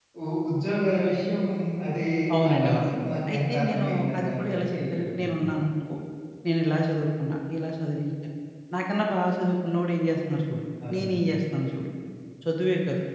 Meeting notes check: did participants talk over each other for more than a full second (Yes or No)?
Yes